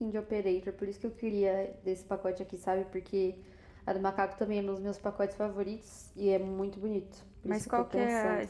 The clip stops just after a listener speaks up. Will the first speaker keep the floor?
No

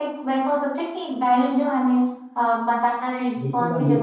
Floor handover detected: Yes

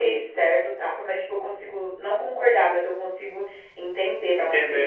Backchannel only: No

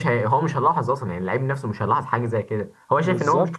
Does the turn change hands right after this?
Yes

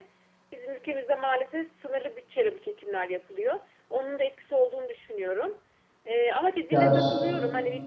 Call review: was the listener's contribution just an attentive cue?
Yes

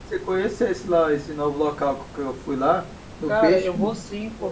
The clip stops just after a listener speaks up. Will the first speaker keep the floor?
No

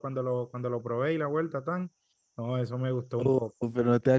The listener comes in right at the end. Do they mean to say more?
Yes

